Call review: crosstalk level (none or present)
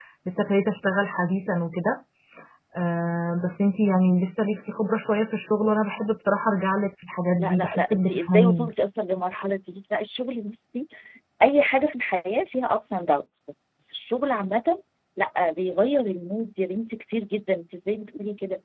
present